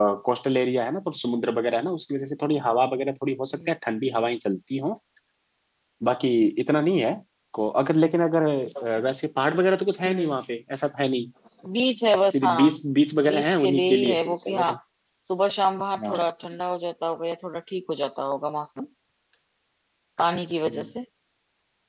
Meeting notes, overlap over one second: present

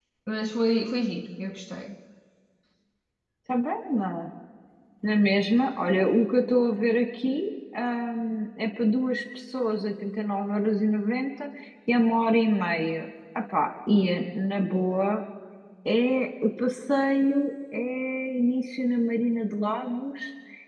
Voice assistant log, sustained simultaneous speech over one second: none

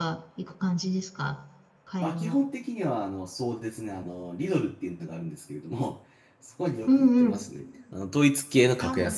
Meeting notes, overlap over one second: none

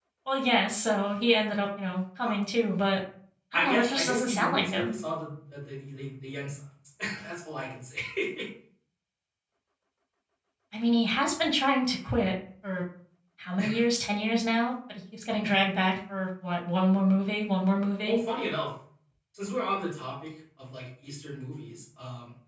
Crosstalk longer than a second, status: present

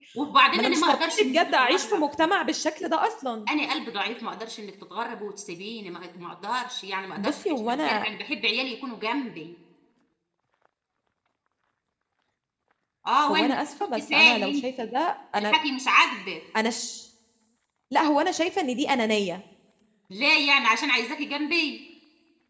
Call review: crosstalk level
present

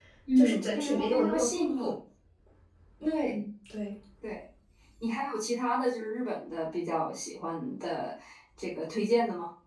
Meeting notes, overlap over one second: present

